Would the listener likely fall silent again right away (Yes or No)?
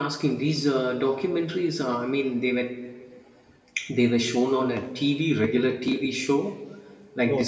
No